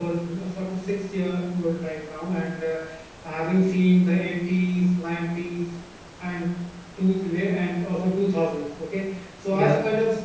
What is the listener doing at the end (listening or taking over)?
listening